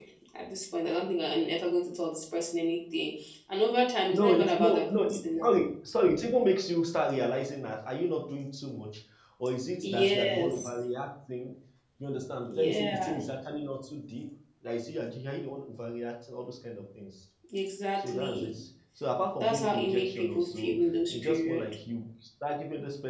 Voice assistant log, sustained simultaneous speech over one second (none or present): present